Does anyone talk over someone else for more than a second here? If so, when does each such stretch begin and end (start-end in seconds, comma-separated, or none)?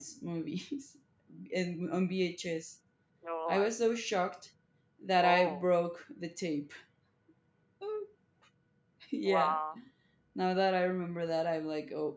none